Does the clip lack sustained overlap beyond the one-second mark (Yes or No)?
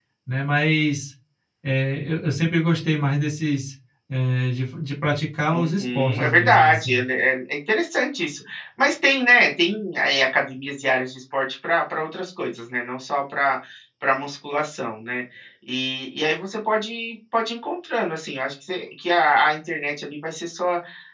No